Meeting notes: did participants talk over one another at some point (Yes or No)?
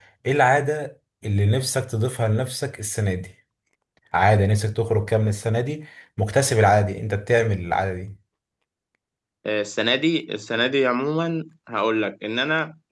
No